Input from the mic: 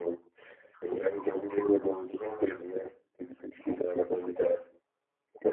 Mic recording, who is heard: echo only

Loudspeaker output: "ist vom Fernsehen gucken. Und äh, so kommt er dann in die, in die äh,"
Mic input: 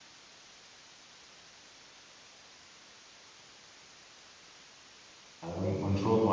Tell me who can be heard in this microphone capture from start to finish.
user only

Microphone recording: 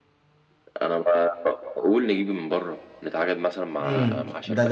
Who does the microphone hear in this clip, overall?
both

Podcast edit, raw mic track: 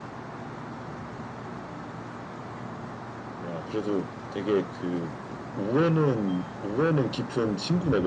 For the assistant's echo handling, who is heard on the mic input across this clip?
echo only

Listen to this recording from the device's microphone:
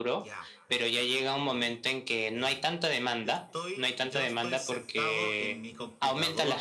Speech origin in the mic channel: both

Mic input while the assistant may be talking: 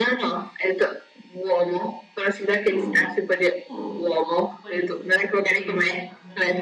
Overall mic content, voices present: both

